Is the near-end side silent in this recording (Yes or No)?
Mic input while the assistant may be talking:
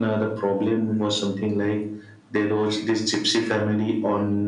Yes